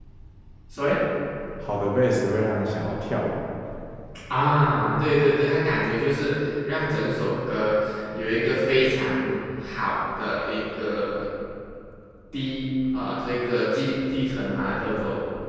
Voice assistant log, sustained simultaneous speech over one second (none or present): none